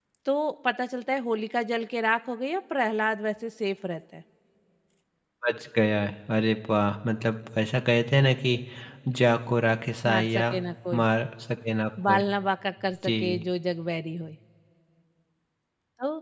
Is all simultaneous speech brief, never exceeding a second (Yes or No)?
Yes